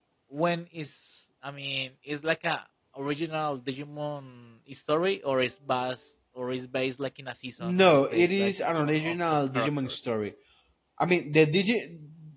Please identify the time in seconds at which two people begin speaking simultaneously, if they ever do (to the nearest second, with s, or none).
8 s